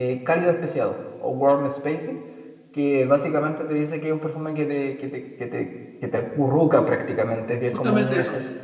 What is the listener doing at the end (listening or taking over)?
taking over